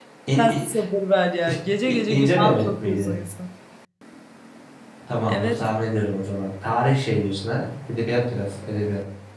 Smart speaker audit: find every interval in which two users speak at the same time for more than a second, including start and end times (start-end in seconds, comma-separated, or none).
1.9-3.1